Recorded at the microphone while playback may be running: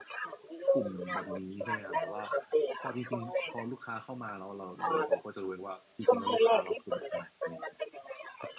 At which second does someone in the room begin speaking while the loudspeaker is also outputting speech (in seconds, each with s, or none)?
0.7 s